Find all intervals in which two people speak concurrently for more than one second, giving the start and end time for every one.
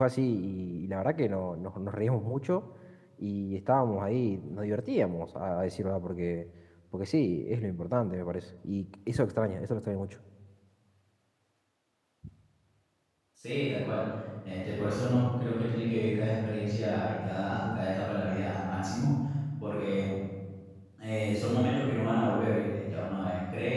none

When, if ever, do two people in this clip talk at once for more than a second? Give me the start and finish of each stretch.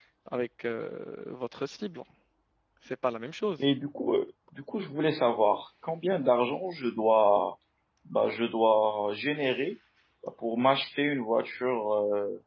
none

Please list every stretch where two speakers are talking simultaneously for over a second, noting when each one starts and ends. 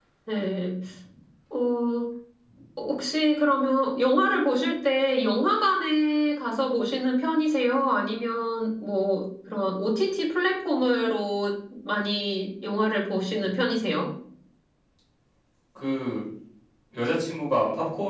none

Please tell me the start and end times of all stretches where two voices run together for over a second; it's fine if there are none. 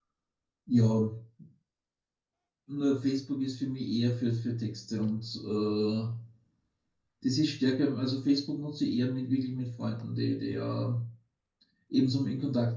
none

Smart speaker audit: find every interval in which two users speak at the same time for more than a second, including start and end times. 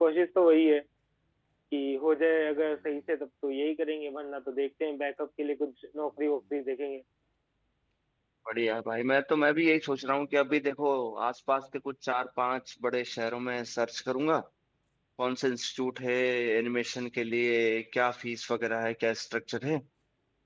none

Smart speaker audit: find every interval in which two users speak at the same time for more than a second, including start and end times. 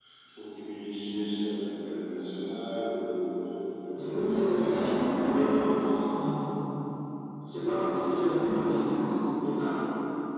4.0-5.3

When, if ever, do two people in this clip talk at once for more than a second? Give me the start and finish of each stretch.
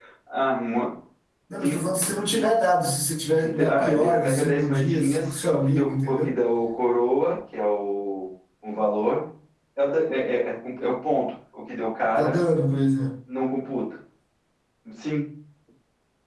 3.4-6.4

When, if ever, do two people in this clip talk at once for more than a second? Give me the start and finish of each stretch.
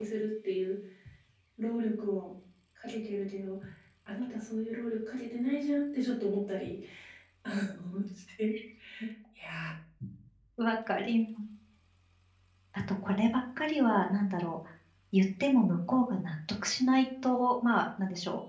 none

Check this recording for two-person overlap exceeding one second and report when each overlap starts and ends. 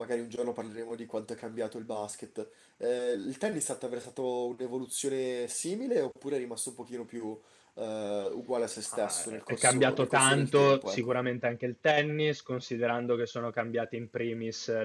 8.9-11.1

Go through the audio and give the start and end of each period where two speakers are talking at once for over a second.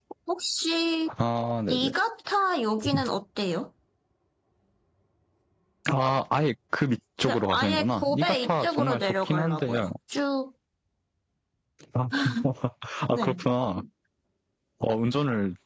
7.2-9.9

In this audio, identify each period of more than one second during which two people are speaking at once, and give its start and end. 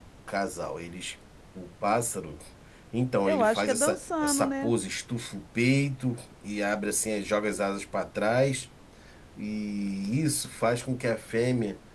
3.2-4.7

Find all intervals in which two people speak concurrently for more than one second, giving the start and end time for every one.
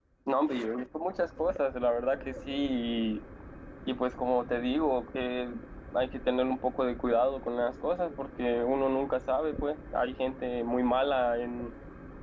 none

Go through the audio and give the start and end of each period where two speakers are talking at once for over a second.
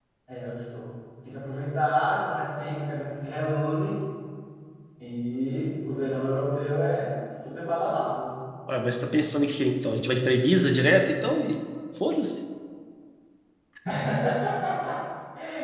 none

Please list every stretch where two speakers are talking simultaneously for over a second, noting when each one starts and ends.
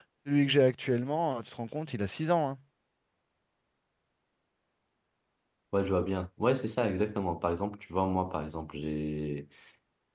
none

